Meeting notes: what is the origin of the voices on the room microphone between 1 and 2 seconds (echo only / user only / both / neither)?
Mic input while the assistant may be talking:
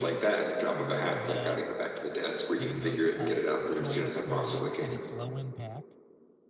both